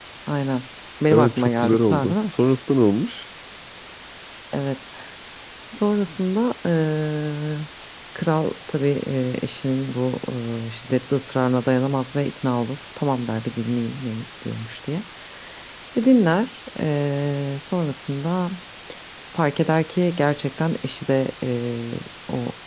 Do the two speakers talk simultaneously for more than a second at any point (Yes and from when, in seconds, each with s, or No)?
Yes, from 1.1 s